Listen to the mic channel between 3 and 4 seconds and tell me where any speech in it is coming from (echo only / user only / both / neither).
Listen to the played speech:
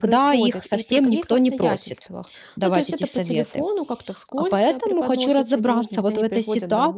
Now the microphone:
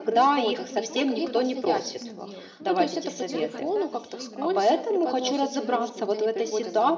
both